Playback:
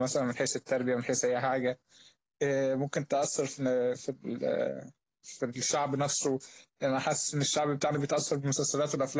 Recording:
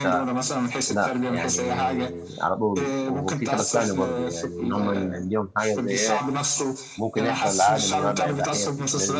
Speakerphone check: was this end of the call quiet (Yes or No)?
No